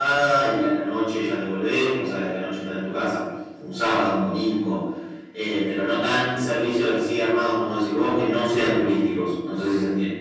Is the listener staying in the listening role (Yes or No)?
No